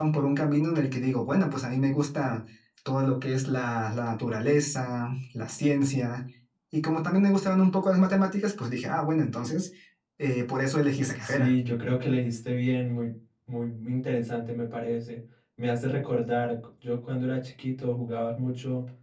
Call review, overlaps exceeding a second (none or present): none